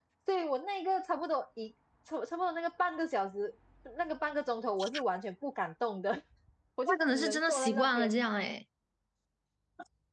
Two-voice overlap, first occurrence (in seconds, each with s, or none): 6.9 s